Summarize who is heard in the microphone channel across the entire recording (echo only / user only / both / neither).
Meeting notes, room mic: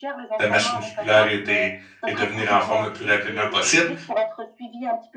both